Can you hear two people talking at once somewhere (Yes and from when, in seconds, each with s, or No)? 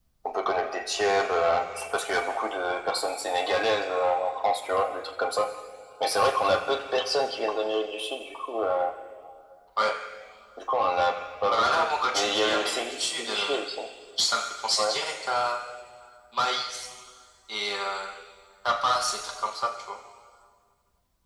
Yes, from 11.5 s